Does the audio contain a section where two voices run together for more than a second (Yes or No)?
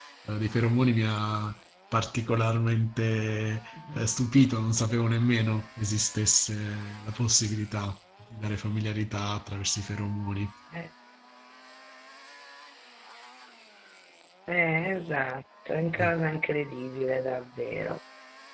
No